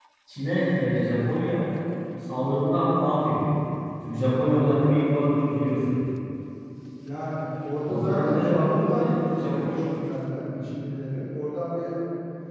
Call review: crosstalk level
present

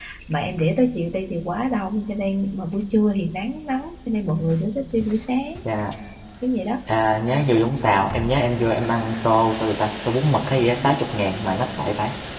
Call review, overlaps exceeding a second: none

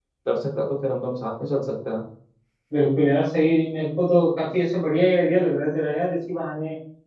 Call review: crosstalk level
none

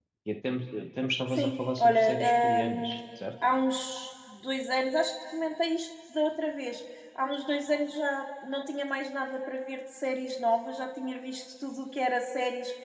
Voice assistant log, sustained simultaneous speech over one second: present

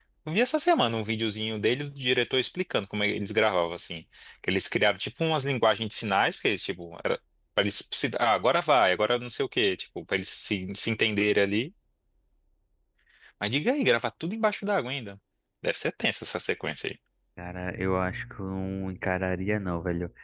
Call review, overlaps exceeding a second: none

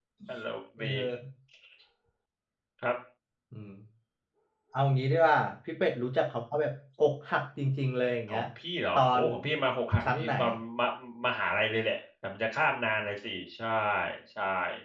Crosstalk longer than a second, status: none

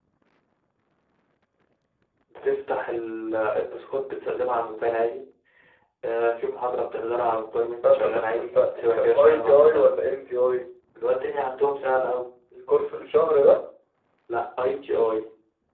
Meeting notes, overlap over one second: present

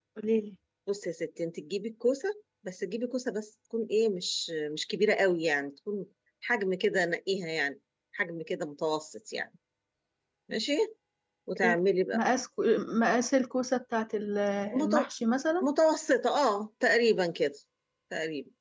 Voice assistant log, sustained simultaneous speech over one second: none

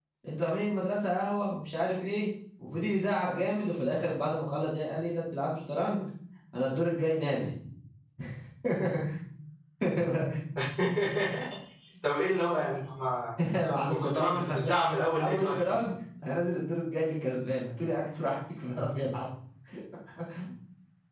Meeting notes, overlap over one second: present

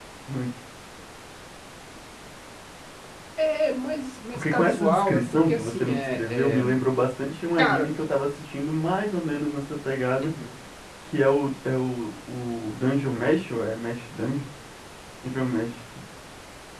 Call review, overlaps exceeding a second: present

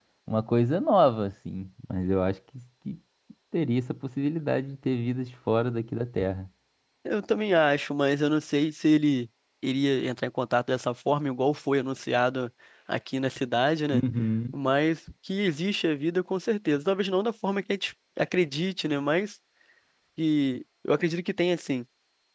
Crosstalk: none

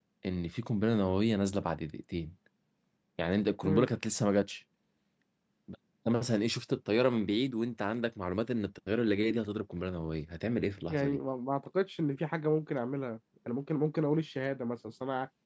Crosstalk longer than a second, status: none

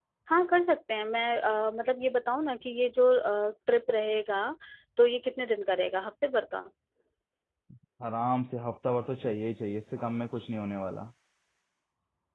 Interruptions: none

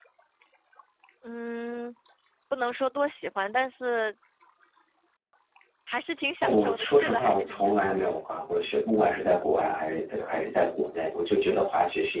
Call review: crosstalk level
present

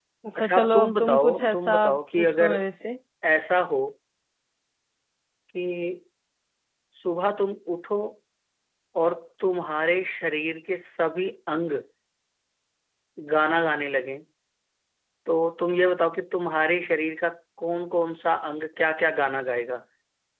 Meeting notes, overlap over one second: present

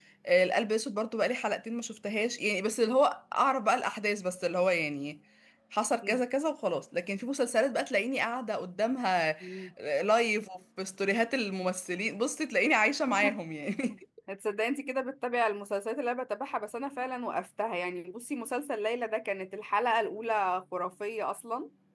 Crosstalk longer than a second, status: none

